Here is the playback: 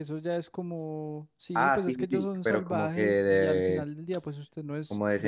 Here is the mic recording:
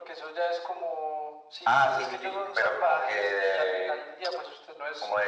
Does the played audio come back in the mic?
Yes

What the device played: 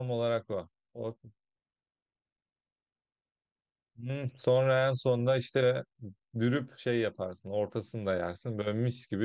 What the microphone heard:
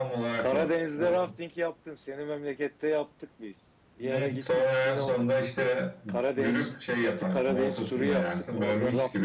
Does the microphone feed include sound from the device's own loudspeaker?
Yes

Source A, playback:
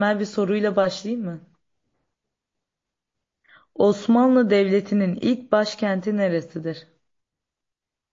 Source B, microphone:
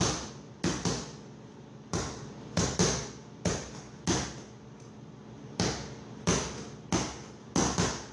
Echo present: No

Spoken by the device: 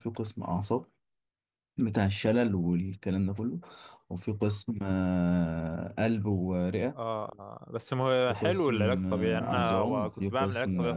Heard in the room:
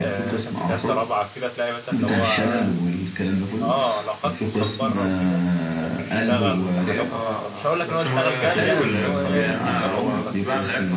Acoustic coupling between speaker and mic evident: Yes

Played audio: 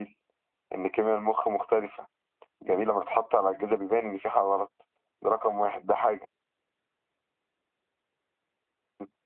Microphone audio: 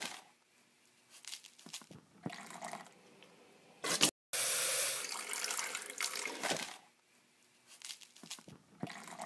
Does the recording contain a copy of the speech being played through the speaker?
No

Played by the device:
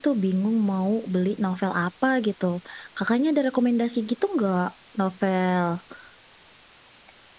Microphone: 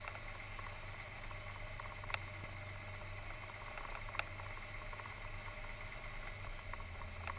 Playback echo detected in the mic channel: No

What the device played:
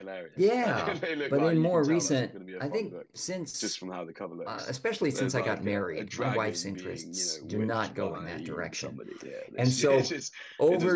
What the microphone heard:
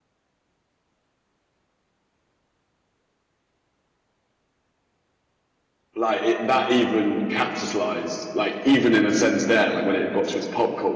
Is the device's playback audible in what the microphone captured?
No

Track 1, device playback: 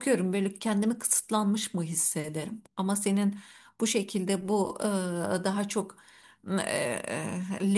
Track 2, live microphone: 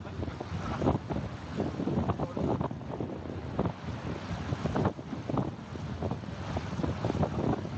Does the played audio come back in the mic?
No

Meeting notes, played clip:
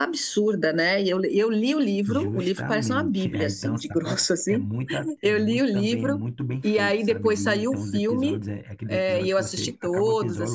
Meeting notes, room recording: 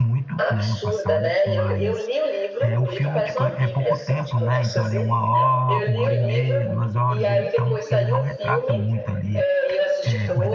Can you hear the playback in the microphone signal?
Yes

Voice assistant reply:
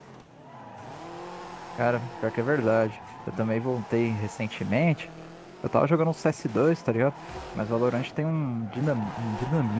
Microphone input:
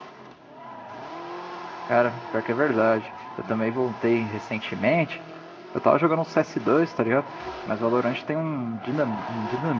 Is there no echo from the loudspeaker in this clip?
No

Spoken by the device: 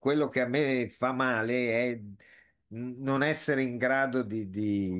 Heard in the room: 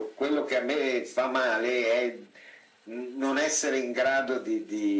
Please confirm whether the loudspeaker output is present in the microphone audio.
Yes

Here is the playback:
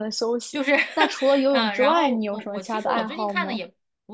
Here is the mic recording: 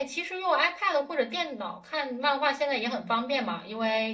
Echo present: No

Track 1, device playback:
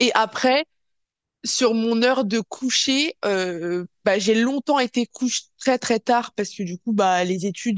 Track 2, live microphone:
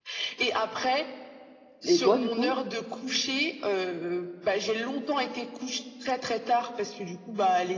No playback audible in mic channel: No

